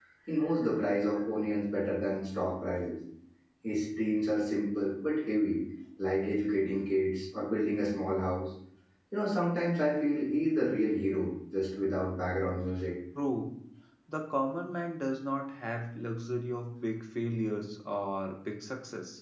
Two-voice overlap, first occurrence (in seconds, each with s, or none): none